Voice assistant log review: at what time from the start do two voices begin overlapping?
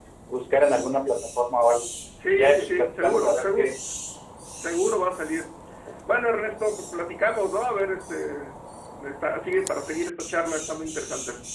2.3 s

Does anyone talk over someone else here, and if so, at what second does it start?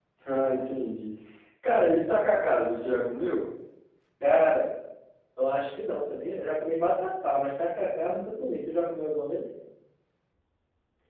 none

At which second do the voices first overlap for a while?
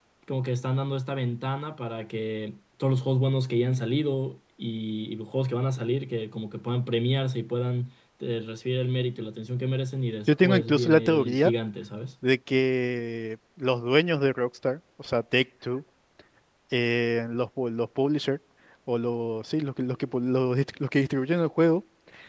10.3 s

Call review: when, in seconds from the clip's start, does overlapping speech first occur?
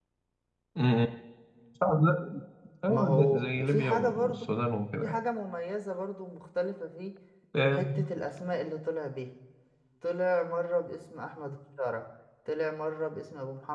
2.9 s

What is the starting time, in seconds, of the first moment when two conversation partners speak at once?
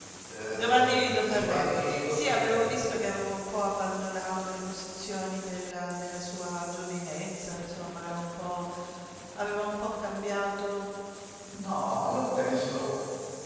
0.5 s

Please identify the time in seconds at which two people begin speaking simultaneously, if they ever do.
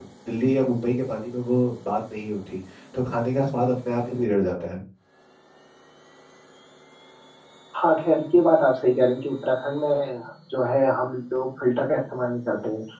none

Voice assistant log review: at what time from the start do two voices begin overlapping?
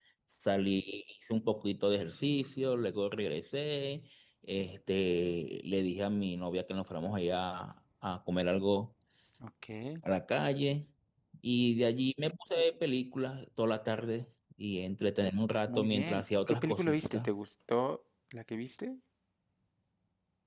15.7 s

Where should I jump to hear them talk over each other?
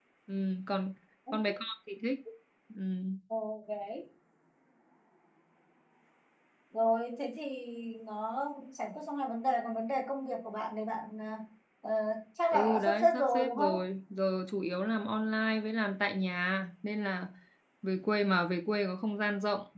12.5 s

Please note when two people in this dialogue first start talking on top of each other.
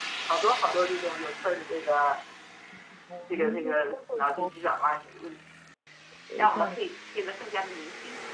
3.3 s

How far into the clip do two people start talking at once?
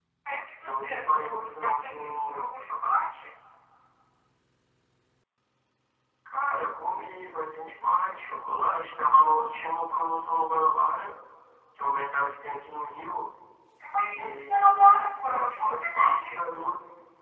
0.6 s

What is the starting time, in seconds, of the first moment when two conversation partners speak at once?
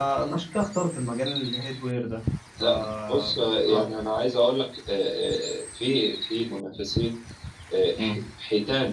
2.6 s

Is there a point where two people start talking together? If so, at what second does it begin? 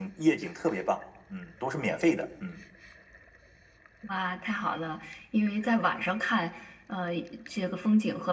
none

